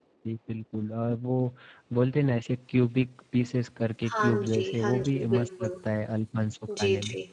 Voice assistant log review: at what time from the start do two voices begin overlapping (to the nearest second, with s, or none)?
4 s